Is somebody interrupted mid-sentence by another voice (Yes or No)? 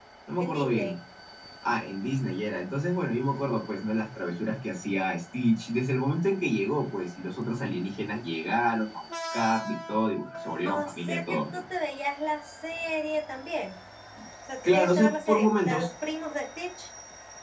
Yes